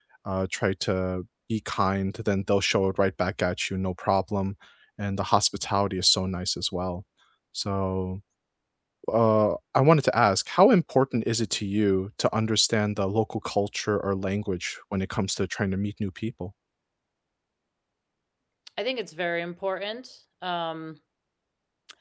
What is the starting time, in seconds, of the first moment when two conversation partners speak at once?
none

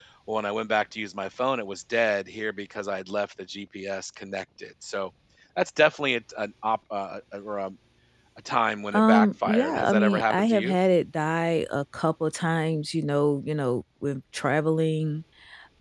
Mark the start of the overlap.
8.9 s

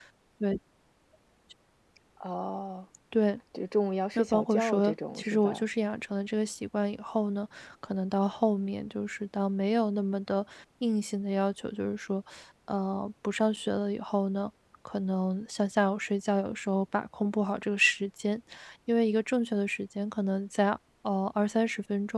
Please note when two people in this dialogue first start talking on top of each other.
4.2 s

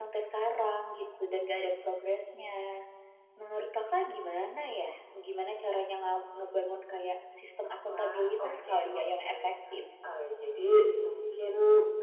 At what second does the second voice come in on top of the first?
7.9 s

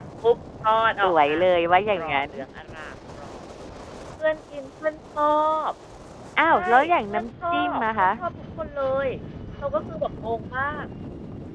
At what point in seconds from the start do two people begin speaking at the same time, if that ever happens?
1.0 s

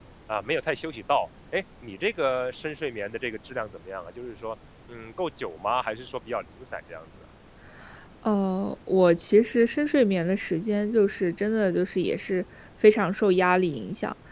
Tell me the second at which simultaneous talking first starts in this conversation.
none

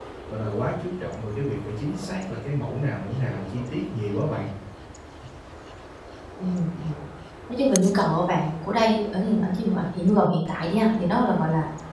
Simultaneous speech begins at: none

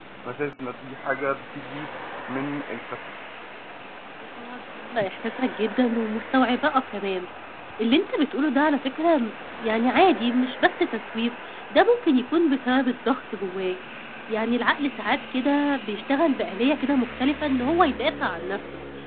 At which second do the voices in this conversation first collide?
none

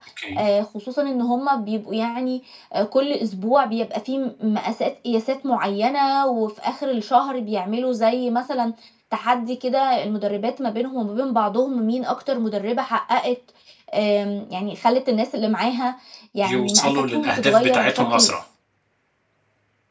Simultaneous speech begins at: 16.4 s

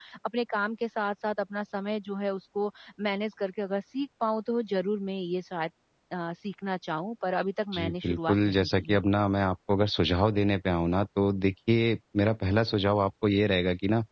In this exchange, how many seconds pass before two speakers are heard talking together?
7.7 s

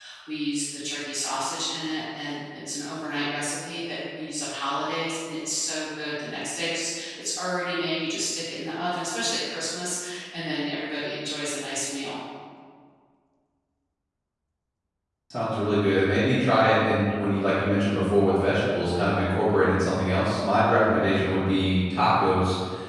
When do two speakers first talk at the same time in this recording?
none

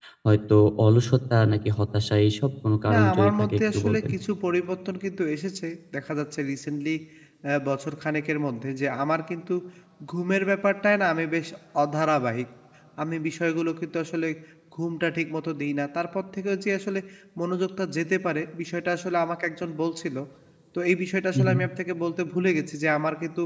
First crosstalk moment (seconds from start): 2.9 s

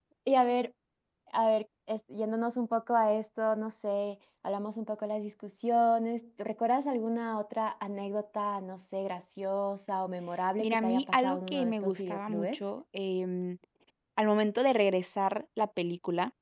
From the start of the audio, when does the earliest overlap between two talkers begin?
10.6 s

